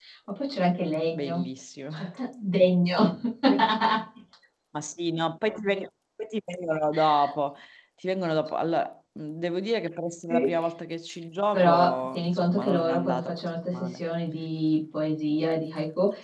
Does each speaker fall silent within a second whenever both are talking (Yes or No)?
No